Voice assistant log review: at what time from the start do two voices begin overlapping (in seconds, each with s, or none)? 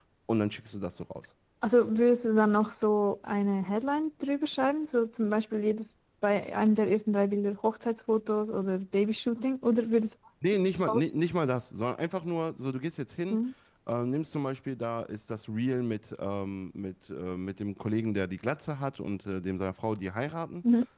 none